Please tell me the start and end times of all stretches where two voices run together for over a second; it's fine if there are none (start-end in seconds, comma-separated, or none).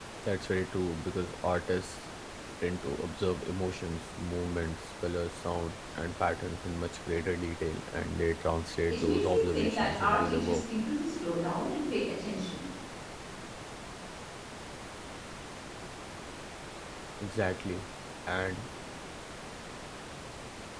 8.9-10.6